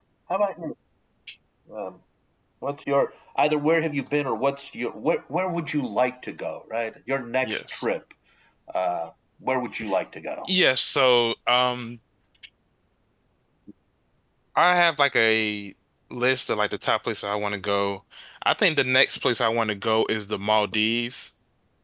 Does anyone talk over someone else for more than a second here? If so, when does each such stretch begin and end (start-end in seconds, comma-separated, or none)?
none